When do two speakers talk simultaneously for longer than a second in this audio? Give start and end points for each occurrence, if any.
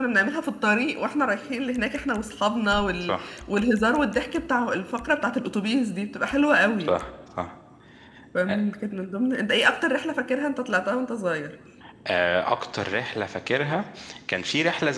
none

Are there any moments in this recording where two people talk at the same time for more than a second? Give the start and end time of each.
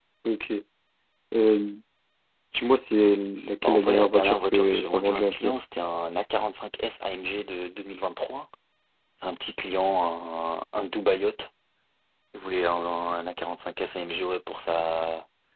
3.6-5.5

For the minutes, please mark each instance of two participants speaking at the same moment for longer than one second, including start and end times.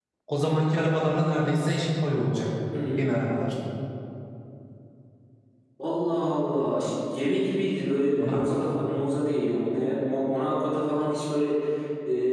none

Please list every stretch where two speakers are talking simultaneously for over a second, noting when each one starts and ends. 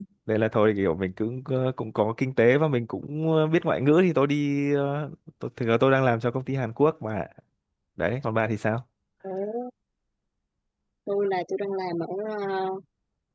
none

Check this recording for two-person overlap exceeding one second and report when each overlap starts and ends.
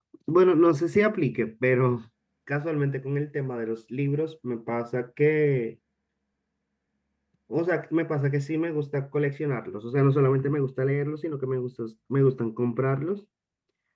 none

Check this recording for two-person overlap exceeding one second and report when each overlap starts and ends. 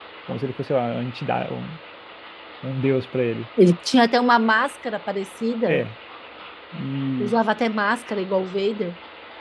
none

